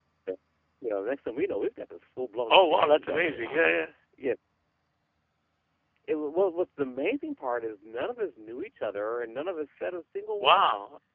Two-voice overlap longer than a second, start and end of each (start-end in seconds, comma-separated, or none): 2.5-3.7